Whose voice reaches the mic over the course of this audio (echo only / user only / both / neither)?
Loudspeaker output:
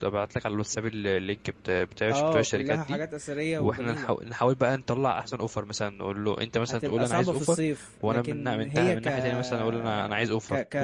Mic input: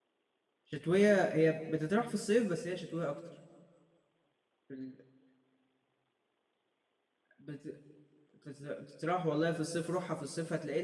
user only